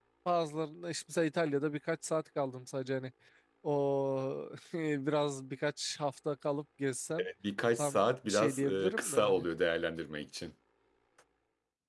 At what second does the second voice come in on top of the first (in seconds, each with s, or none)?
7.8 s